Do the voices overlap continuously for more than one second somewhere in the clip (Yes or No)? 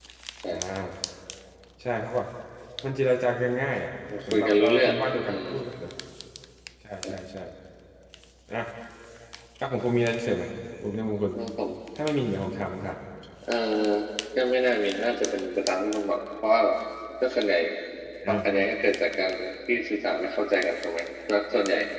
Yes